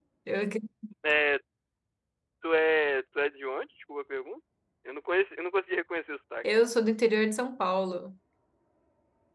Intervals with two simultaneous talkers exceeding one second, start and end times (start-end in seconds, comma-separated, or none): none